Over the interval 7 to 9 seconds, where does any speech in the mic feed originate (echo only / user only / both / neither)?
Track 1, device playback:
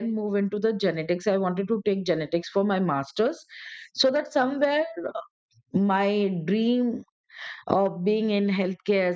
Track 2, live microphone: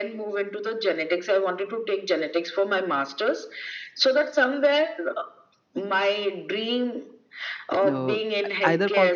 both